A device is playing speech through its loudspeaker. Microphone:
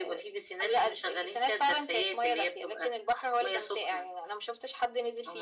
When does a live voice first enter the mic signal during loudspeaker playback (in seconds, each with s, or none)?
none